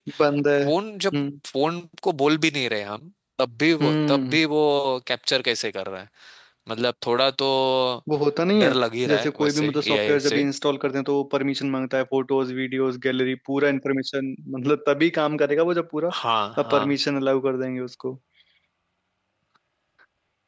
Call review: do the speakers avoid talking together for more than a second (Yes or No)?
No